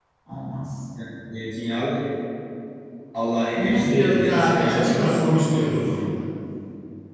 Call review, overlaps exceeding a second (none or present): present